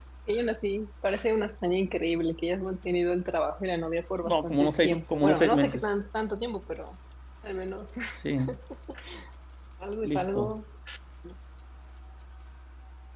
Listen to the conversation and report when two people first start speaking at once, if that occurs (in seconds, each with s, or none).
4.2 s